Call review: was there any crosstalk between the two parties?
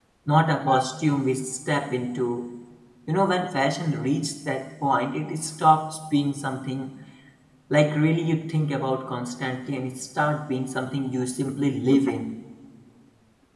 No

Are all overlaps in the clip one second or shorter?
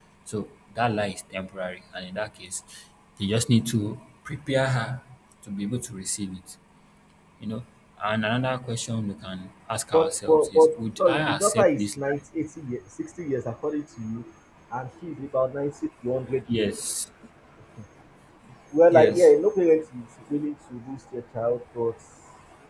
No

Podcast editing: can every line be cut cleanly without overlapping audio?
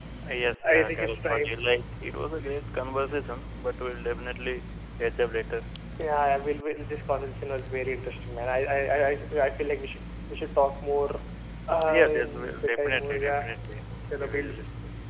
No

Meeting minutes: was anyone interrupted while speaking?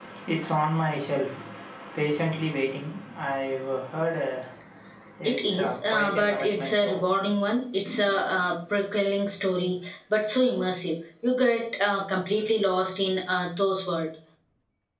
Yes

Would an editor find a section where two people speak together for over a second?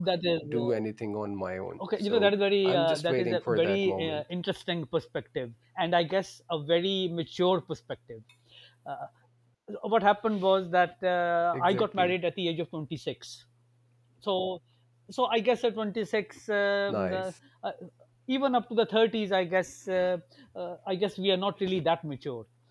Yes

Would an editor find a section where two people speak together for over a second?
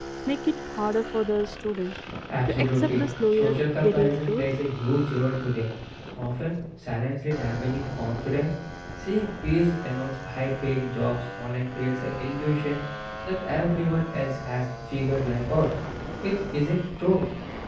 Yes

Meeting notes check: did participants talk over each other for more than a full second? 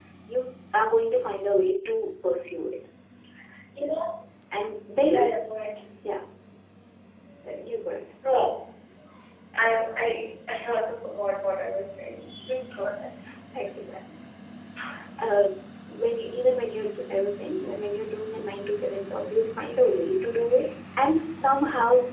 No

